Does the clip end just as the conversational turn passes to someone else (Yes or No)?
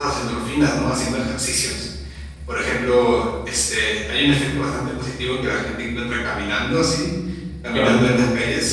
No